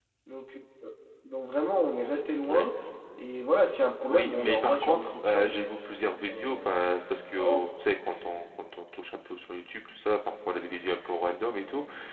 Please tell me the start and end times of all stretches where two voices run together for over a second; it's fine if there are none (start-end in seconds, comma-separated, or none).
4.1-5.7